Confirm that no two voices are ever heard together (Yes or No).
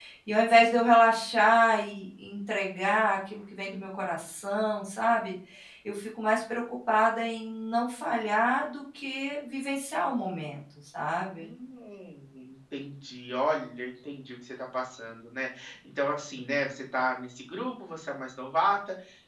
Yes